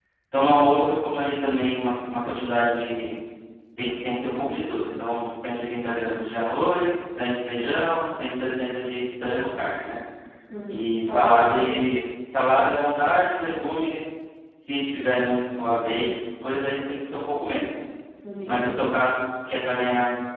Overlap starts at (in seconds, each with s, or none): 10.7 s